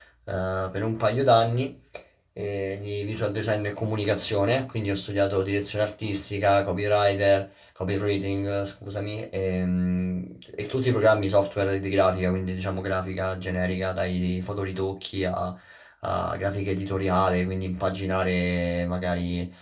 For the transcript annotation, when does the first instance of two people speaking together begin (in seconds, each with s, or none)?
none